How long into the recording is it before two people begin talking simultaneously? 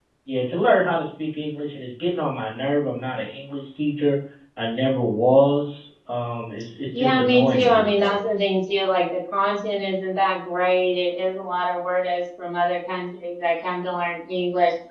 7.0 s

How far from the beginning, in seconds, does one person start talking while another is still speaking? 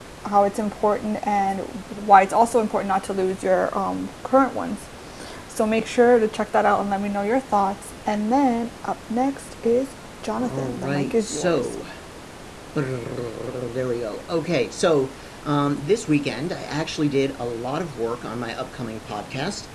10.4 s

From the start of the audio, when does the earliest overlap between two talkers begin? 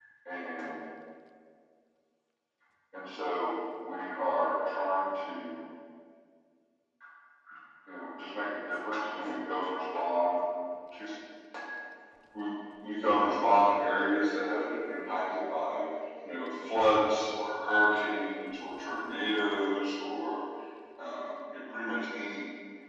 none

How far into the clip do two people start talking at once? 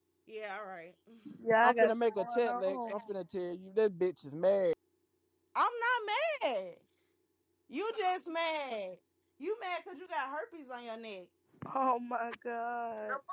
1.6 s

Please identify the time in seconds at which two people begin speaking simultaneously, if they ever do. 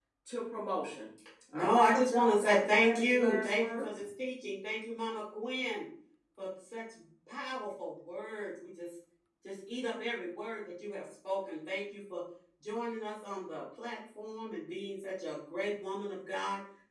1.5 s

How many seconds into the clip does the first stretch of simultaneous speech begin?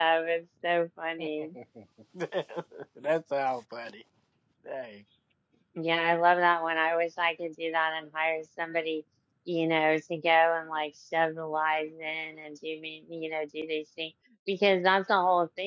none

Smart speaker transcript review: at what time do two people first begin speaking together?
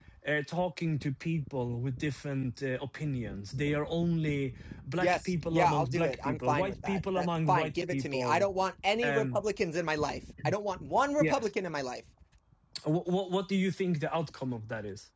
5.0 s

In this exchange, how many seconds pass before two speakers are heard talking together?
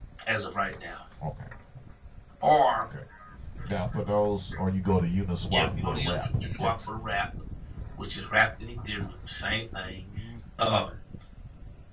5.5 s

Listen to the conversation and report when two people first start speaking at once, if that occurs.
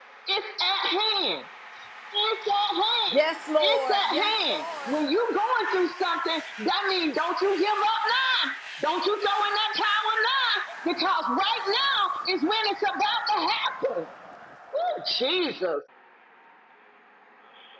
3.6 s

